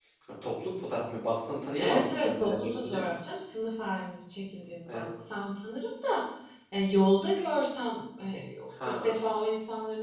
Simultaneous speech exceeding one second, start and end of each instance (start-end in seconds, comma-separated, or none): 1.8-3.0